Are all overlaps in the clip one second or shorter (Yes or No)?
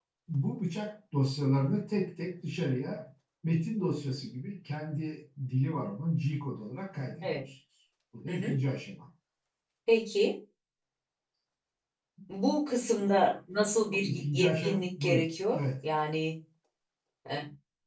No